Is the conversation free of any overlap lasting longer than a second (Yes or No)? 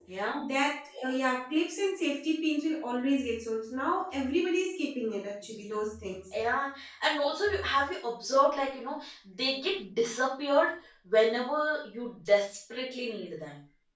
Yes